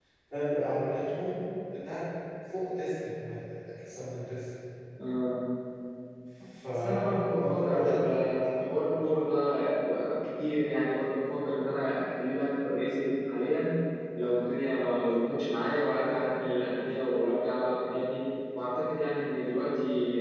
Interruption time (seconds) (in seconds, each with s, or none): 6.7 s